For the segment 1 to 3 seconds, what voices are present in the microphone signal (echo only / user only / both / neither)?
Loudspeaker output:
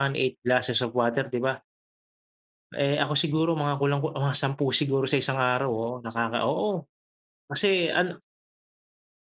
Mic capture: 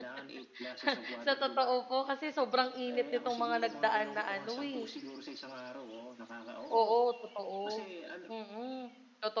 both